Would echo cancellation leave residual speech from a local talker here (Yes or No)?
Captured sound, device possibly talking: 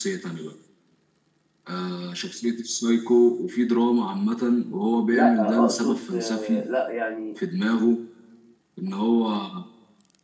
Yes